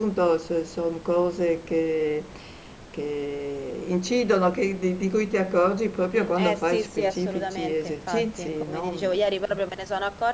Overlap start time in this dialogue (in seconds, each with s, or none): 6.1 s